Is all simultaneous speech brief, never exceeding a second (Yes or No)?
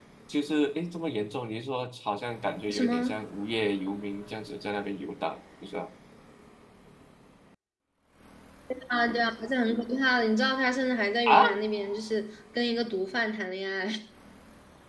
Yes